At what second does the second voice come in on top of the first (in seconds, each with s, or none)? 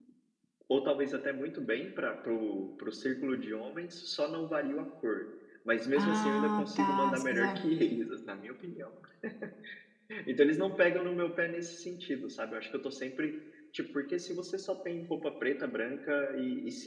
6.0 s